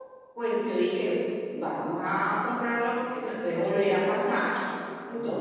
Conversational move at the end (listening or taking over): taking over